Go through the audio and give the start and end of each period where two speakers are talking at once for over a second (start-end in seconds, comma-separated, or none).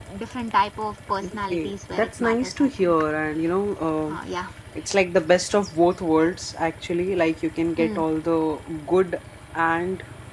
1.2-2.9